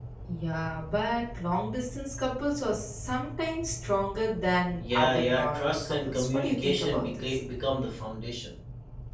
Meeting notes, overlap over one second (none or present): present